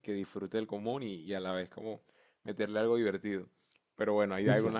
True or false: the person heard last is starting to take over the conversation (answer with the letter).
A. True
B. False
B